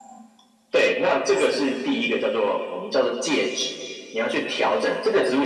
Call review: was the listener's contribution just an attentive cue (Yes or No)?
Yes